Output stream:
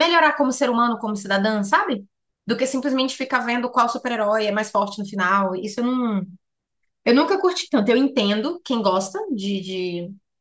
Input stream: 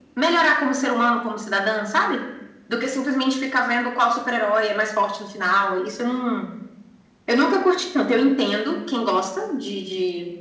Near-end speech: none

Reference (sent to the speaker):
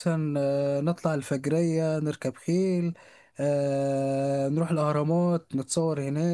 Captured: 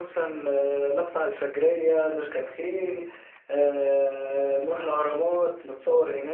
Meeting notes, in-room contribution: none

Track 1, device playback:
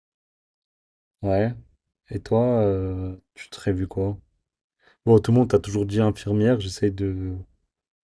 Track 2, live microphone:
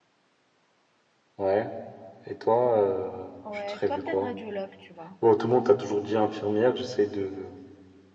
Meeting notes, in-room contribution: present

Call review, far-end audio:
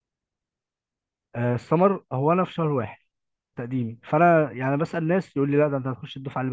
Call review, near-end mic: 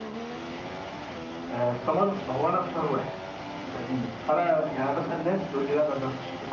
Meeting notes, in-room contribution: none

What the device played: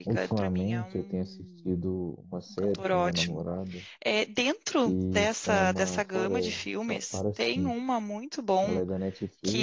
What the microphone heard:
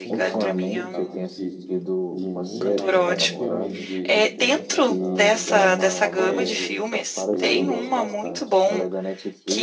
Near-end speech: present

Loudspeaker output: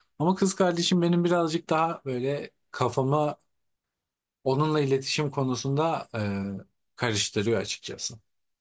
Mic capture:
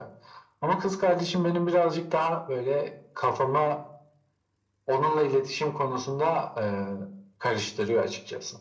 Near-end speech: none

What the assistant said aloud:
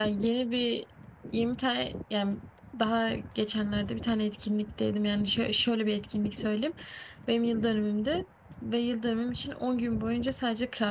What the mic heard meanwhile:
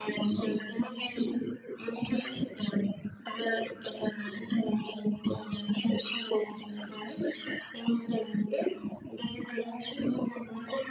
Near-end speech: none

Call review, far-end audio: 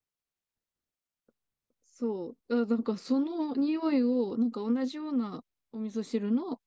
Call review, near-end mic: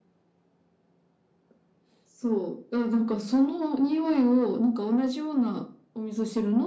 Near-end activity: none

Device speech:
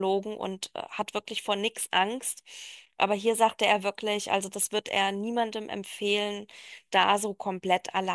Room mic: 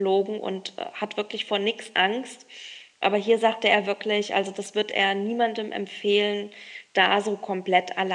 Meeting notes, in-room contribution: none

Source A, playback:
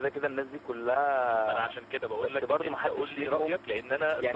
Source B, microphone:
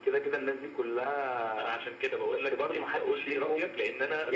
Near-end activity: none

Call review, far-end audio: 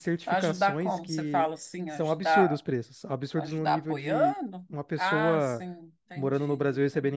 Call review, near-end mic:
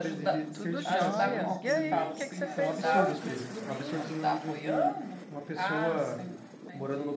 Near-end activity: present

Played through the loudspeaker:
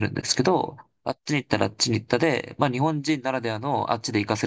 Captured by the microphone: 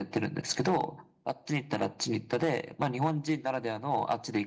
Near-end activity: none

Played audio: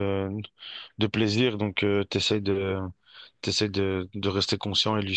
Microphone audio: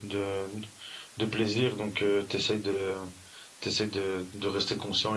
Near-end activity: none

